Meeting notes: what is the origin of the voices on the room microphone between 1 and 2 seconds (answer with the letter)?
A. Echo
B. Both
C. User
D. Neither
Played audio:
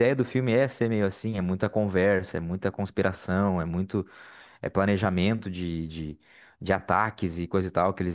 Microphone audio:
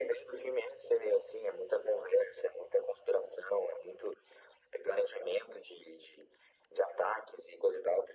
A